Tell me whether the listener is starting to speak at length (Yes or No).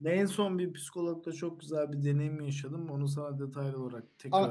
Yes